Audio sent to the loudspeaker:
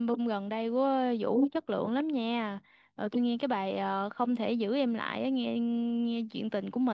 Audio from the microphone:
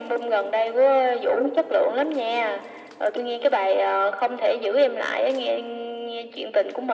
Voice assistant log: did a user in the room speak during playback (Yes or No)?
No